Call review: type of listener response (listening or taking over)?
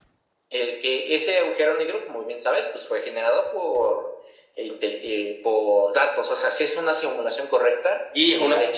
taking over